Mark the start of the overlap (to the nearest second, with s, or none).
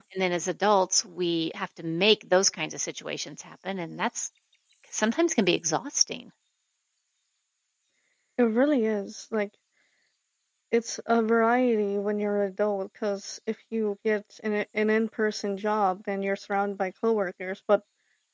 none